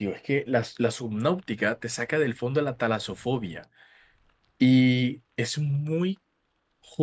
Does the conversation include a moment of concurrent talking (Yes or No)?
No